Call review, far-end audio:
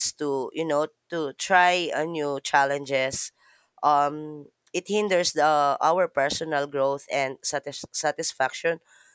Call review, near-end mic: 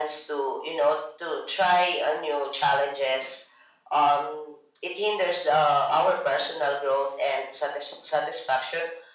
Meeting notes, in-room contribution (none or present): none